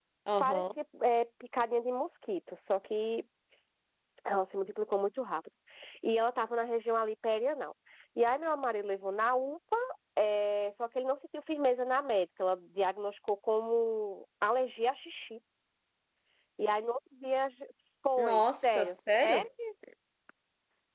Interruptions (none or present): present